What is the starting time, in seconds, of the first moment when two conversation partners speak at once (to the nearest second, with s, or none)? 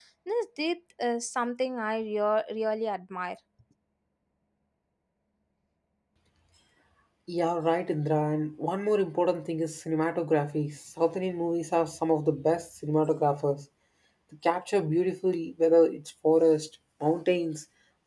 none